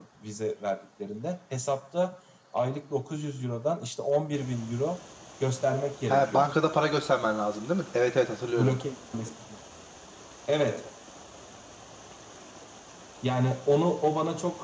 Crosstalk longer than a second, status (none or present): none